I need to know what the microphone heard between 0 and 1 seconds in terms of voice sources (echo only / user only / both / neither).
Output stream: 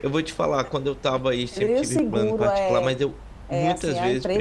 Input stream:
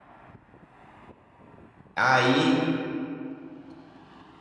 neither